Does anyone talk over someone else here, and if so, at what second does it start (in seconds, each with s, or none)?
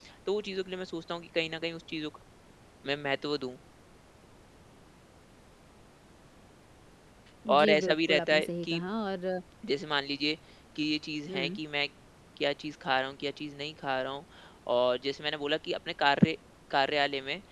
7.6 s